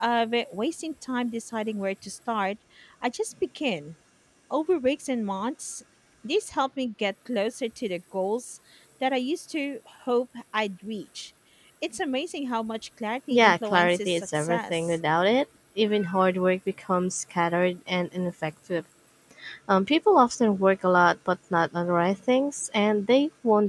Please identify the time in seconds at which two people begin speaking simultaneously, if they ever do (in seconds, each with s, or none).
13.3 s